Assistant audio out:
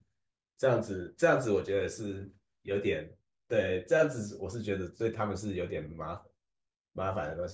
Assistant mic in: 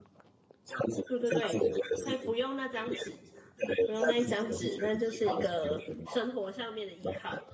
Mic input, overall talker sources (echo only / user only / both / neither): both